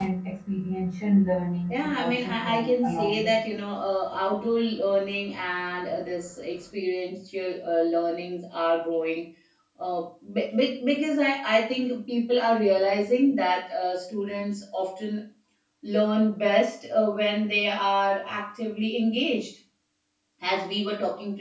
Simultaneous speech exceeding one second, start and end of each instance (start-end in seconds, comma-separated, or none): 1.7-3.3